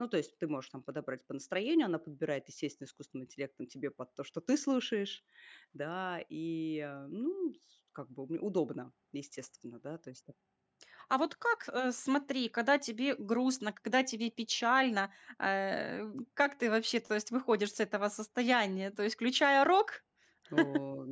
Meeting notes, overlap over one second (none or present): none